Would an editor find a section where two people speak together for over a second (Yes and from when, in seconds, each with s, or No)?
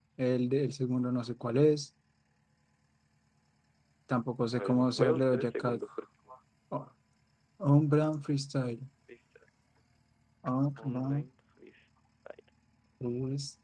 Yes, from 4.5 s